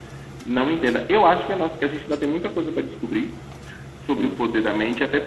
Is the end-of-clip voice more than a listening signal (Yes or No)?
No